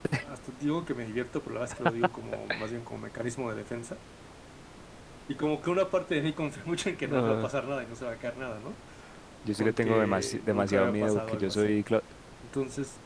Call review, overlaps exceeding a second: present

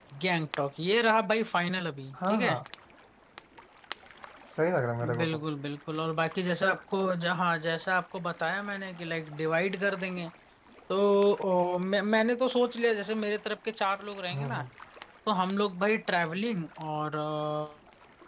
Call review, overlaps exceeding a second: none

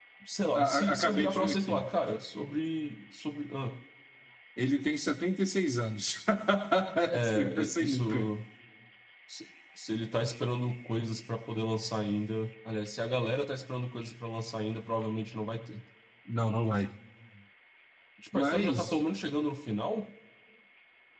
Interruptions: present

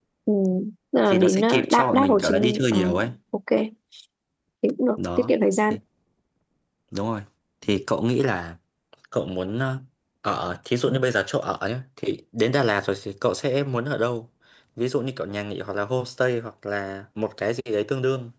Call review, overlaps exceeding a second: present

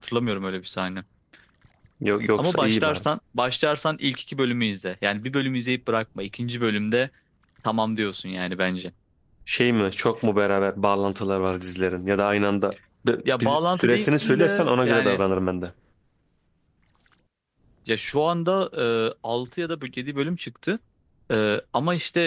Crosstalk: present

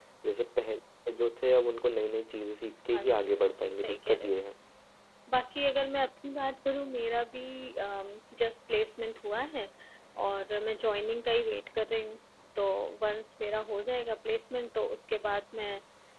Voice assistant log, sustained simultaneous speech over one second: present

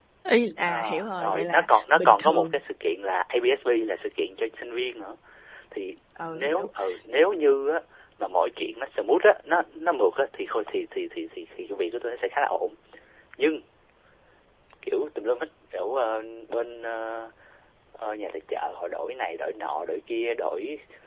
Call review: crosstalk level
present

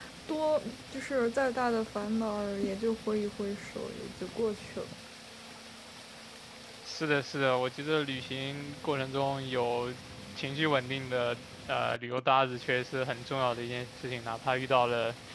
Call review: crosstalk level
none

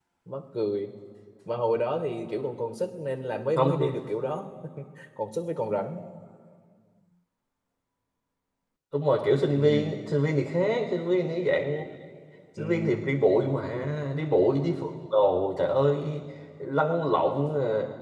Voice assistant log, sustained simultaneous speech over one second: none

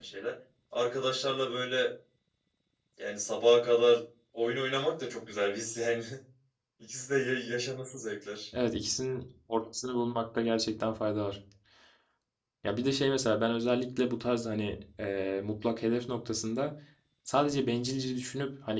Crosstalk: none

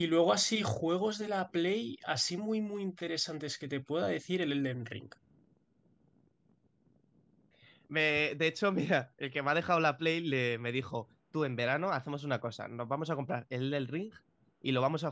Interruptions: none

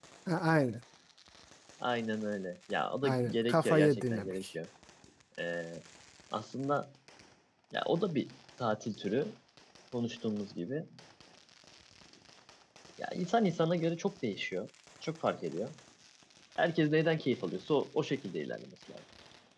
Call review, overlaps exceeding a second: present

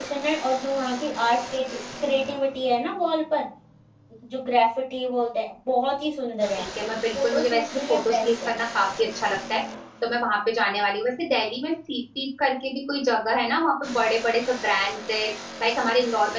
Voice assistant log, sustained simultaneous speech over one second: present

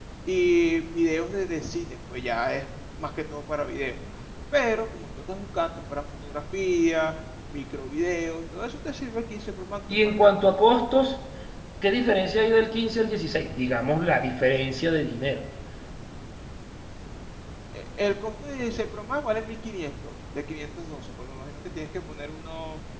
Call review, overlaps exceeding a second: none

